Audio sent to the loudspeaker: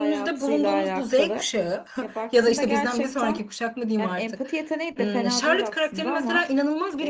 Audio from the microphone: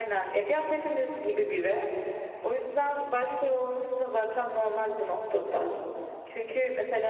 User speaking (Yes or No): Yes